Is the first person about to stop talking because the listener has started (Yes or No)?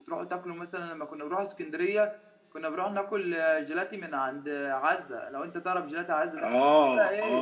Yes